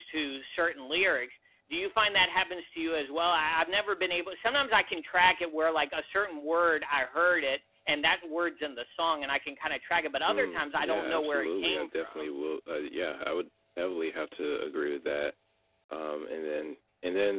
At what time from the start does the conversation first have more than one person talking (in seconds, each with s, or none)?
10.3 s